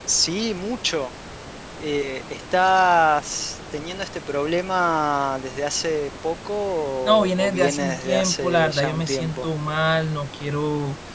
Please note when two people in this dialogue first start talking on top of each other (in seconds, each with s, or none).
7.0 s